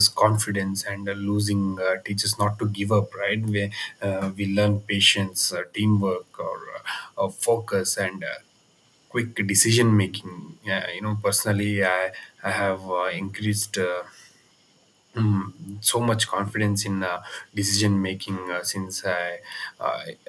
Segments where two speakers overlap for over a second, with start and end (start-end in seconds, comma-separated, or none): none